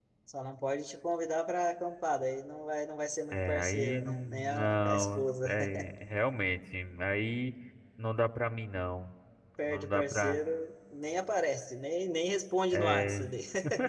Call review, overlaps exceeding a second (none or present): present